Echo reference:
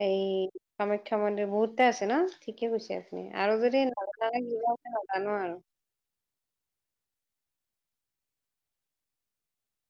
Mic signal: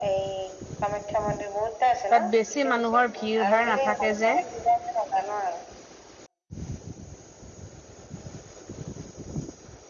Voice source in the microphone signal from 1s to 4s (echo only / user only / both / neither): both